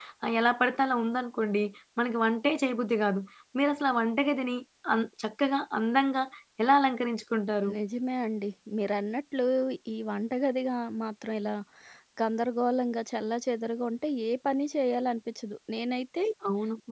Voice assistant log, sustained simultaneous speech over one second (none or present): none